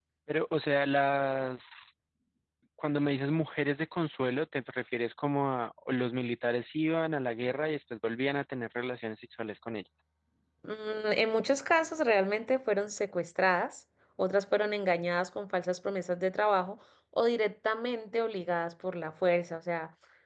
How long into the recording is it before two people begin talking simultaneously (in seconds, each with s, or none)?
none